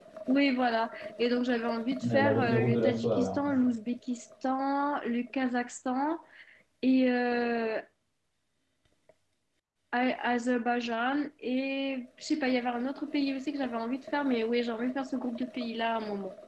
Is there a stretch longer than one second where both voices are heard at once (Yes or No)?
Yes